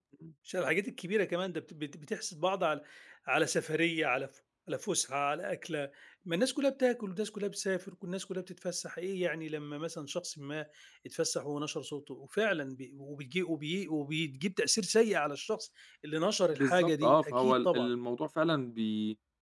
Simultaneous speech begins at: 17 s

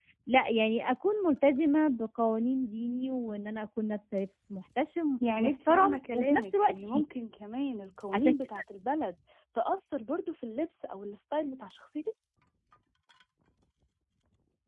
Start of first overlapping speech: 5 s

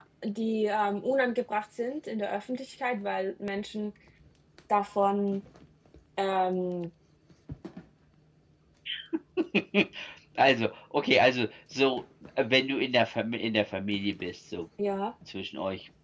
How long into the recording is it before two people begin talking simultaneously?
none

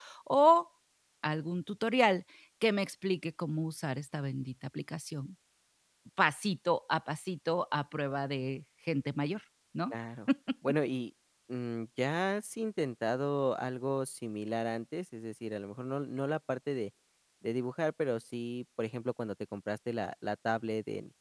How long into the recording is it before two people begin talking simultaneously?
none

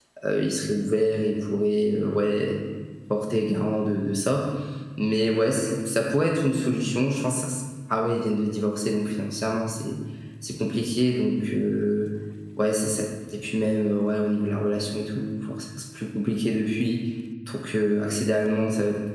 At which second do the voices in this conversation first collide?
none

